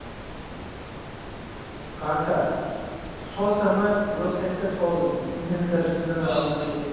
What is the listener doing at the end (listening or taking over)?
taking over